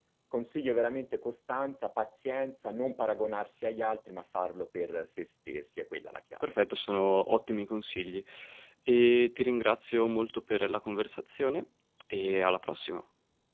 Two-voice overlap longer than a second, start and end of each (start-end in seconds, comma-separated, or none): none